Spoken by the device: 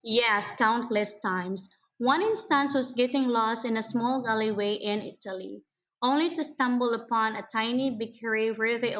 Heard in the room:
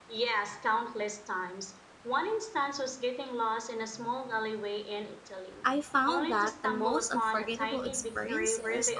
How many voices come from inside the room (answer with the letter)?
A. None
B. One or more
B